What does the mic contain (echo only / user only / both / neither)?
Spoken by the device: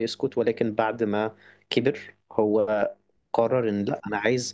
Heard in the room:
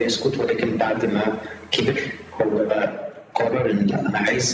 echo only